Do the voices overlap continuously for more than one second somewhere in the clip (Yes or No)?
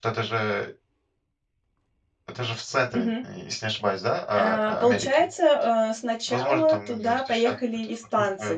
Yes